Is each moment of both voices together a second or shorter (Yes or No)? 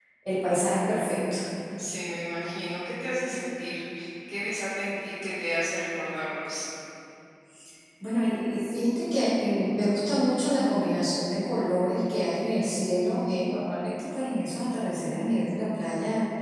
Yes